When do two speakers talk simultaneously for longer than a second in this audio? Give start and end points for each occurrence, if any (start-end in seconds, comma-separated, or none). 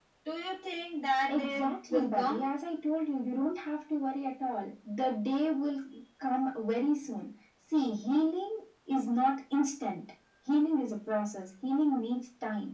1.3-2.5